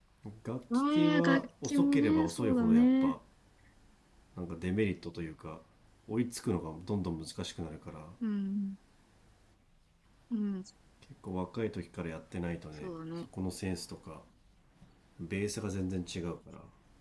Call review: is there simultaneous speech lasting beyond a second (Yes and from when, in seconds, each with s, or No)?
Yes, from 0.7 s